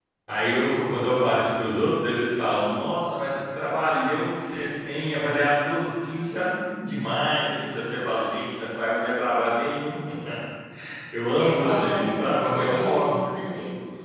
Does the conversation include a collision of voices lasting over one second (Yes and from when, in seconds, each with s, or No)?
Yes, from 11.4 s